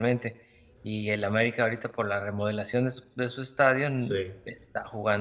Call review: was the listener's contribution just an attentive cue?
Yes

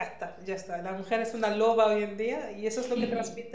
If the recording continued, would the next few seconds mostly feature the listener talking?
No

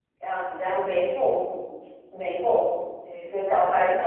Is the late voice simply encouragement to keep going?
No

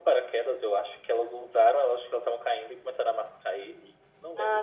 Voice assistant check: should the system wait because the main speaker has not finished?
No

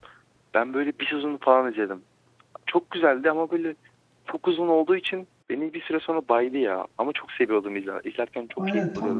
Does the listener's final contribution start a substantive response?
Yes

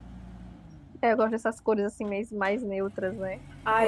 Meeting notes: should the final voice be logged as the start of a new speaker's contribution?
Yes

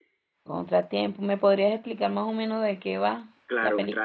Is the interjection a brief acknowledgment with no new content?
No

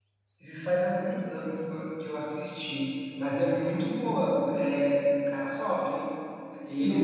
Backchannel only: No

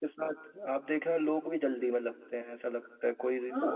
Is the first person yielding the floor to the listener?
No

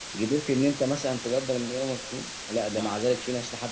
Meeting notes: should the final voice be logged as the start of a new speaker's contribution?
No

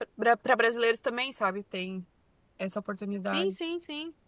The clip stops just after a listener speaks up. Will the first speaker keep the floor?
No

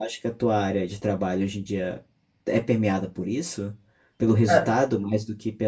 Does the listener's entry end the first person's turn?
No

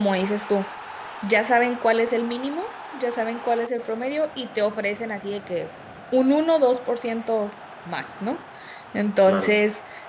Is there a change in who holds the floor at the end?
No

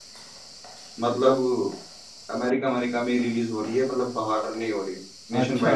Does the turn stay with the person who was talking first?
No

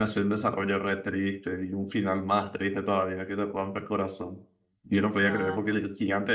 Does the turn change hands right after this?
No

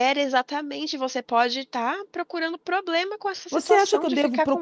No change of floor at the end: No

